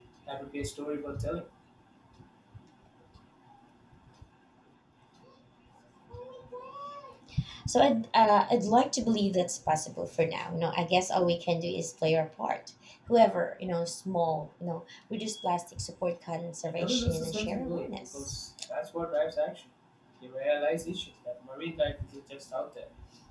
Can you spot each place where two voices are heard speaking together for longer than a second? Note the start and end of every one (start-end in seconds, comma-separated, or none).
16.7-18.3